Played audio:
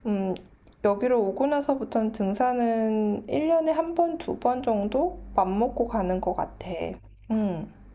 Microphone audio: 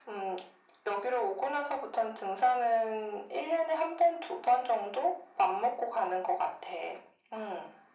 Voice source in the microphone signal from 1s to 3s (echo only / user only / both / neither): echo only